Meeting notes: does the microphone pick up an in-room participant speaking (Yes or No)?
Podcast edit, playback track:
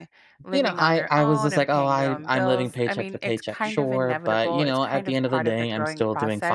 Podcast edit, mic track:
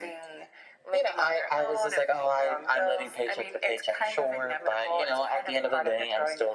No